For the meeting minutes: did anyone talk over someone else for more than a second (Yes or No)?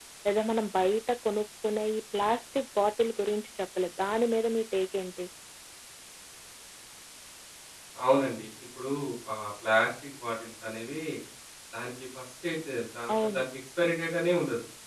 No